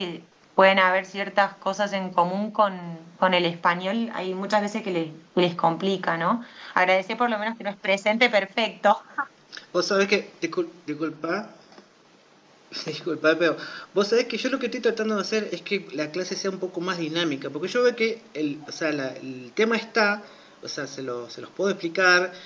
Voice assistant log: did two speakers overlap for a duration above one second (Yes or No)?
No